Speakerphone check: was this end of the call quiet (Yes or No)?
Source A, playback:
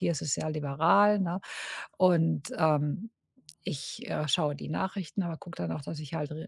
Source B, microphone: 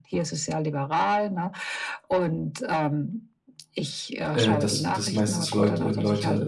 No